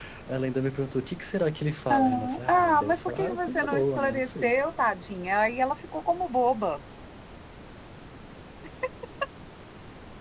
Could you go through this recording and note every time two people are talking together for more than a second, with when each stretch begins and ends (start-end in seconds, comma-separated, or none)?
1.9-4.5